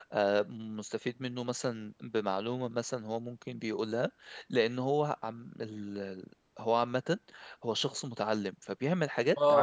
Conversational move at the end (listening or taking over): taking over